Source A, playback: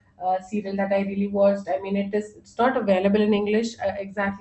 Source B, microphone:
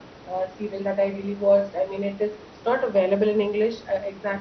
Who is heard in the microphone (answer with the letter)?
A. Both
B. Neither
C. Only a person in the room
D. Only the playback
D